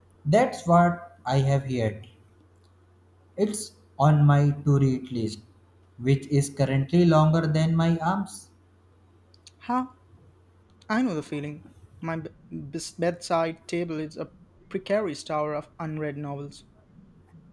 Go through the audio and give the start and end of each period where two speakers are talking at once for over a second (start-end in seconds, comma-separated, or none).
none